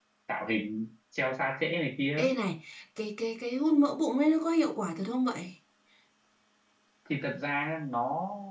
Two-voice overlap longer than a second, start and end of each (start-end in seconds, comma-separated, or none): none